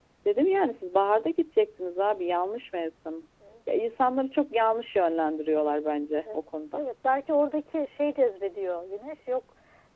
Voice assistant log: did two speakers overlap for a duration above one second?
No

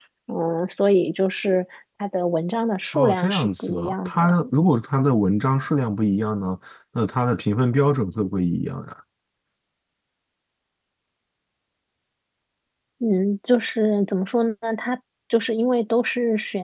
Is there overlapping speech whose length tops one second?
Yes, from 2.9 s

